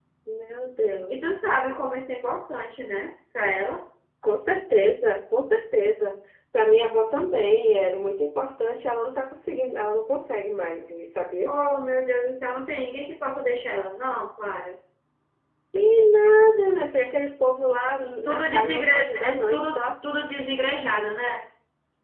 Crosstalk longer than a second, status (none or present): present